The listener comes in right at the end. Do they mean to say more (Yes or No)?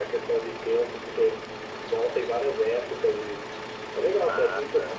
Yes